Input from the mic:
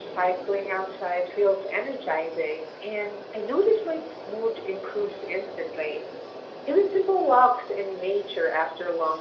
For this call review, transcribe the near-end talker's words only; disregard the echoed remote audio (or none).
none